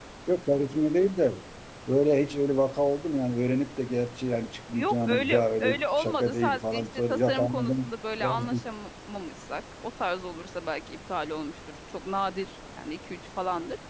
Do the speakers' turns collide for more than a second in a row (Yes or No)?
Yes